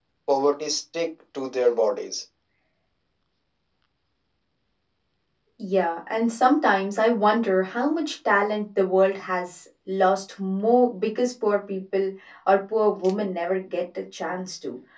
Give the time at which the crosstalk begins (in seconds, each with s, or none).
none